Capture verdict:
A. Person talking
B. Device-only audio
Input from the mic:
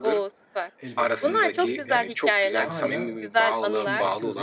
A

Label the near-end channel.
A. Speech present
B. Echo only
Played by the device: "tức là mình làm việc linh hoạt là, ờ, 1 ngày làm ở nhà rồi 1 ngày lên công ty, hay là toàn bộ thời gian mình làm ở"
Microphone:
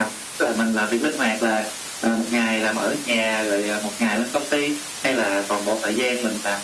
B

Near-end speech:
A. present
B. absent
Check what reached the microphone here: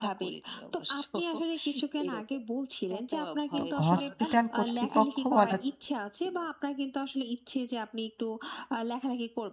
A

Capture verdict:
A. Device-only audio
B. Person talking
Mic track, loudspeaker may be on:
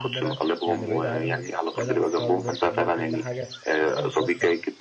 B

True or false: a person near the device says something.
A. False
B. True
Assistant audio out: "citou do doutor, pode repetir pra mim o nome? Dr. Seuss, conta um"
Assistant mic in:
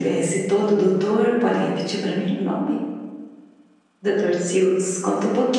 A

